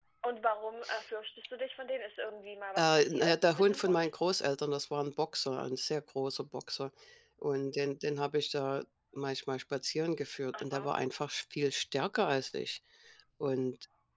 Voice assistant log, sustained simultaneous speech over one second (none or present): present